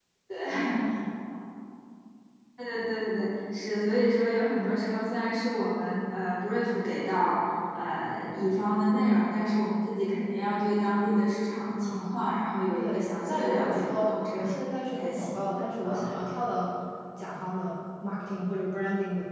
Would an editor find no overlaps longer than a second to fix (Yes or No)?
No